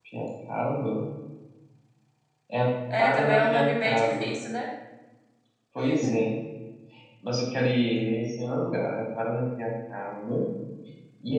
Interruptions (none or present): present